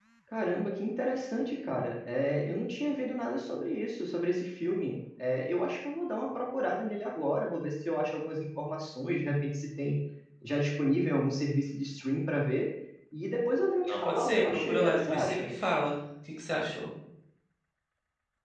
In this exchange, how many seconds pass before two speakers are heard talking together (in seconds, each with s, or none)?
13.8 s